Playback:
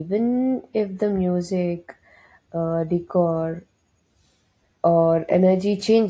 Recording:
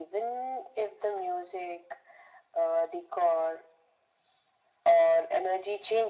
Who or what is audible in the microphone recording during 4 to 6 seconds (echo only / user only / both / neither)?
echo only